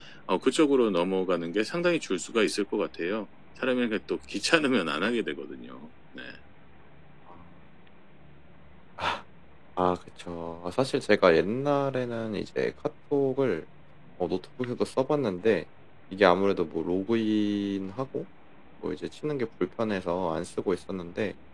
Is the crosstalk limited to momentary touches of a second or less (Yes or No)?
Yes